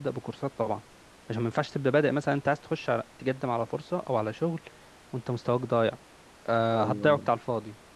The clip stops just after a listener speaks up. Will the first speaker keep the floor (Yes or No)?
Yes